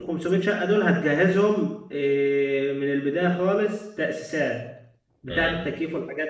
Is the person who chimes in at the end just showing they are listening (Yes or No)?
Yes